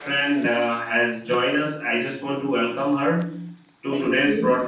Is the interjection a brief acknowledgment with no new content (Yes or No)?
Yes